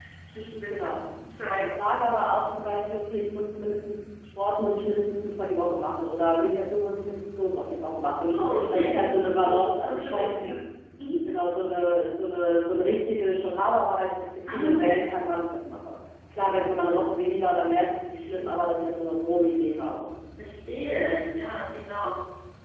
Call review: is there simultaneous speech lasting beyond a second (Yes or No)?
Yes